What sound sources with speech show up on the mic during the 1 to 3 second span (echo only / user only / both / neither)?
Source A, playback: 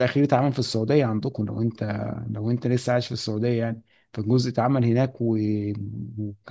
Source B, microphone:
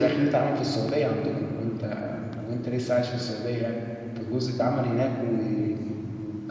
echo only